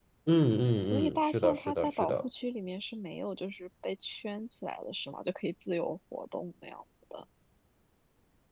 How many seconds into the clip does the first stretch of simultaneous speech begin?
0.8 s

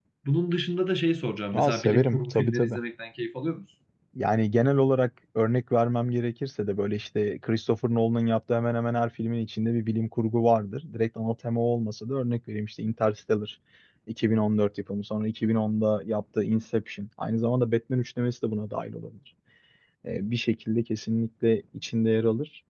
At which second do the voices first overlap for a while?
1.5 s

